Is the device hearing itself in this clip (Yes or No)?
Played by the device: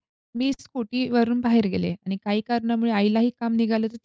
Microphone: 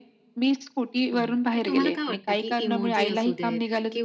Yes